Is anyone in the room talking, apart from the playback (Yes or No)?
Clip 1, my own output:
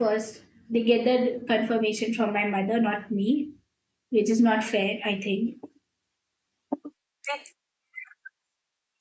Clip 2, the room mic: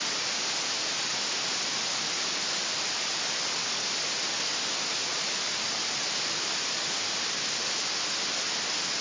No